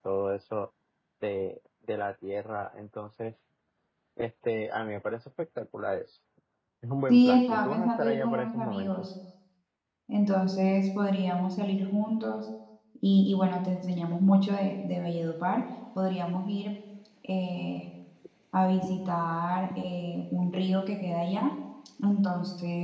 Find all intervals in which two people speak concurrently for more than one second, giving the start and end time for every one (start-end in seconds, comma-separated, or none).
7.1-9.0